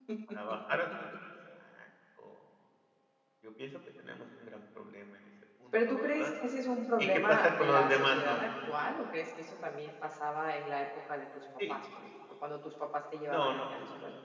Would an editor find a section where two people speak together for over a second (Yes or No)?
Yes